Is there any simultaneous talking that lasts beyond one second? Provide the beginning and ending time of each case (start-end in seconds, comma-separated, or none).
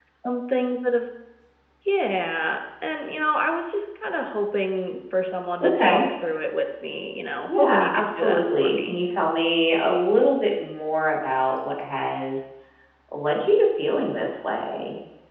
7.5-9.0